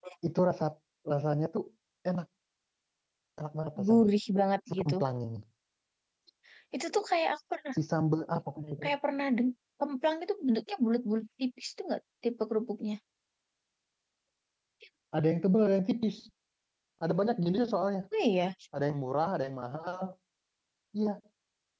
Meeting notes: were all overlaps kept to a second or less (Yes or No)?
Yes